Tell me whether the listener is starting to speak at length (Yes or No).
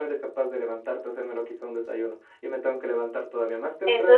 Yes